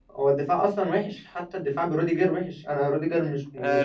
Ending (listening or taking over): taking over